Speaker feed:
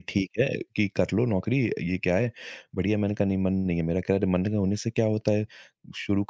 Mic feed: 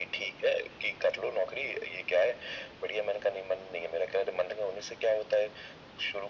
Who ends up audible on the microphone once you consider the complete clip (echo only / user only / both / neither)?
echo only